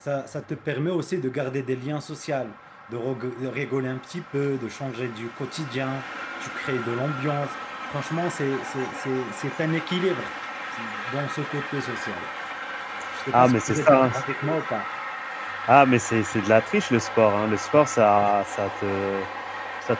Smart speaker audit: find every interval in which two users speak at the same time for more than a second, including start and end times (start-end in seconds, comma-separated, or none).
13.3-14.6